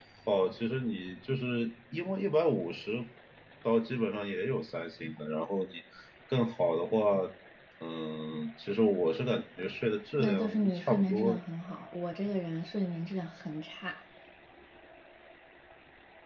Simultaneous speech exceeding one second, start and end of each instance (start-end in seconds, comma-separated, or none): 10.2-11.4